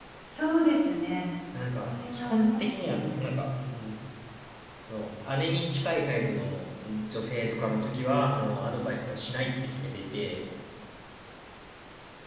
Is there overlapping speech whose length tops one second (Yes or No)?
Yes